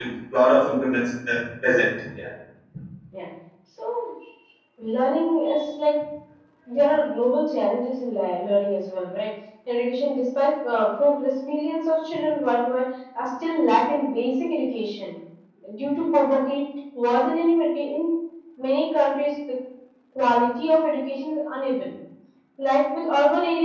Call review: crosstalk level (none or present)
none